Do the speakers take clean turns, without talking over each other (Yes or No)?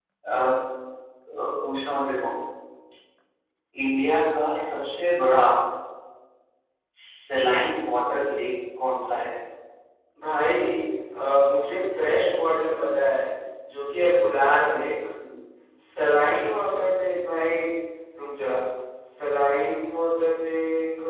Yes